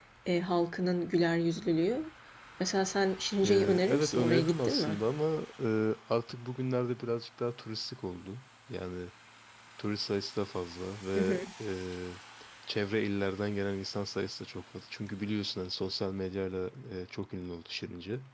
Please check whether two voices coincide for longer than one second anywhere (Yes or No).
Yes